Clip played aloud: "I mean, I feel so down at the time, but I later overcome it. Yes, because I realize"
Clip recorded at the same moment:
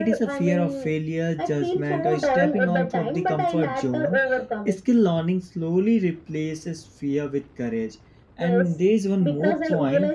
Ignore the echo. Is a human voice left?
Yes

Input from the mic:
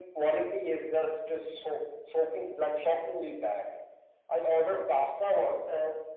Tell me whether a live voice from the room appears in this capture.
No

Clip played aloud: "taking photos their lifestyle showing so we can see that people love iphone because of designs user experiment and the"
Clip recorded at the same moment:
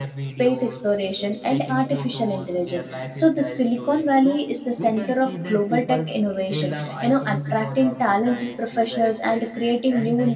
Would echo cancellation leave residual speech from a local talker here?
Yes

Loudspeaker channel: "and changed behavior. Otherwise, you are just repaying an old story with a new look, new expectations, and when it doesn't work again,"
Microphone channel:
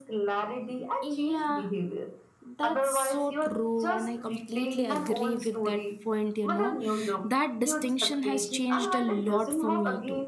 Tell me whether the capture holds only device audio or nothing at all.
No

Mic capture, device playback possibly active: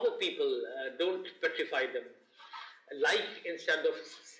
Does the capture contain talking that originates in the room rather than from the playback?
No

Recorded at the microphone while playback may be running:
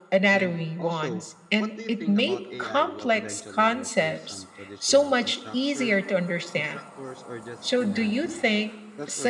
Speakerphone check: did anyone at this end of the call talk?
Yes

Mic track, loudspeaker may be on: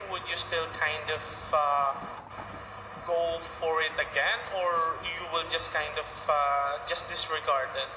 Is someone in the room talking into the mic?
No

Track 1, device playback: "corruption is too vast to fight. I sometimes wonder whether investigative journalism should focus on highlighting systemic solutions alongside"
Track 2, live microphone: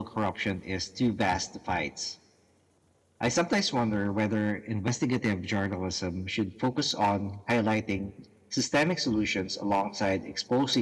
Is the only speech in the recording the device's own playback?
Yes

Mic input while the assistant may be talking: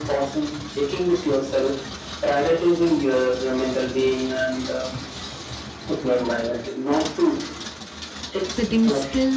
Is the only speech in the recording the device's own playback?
No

